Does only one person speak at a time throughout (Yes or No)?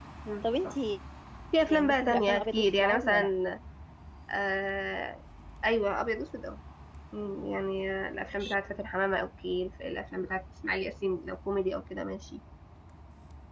No